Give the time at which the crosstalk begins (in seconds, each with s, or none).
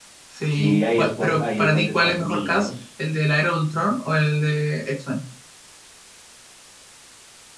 0.5 s